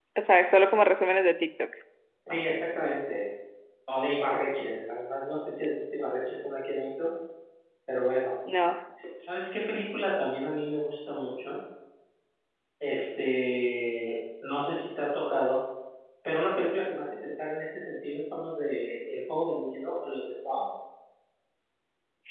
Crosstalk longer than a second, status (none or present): none